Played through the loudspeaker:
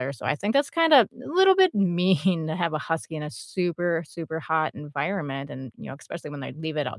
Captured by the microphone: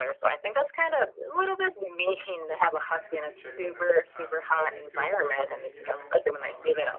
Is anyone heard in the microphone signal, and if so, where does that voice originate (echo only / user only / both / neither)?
both